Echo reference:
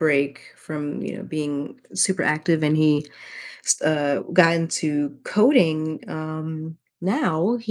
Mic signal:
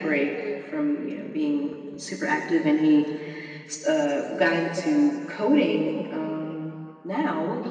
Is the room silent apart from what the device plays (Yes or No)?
Yes